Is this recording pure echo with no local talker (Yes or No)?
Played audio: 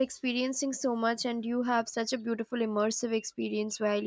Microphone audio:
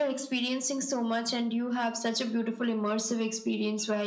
Yes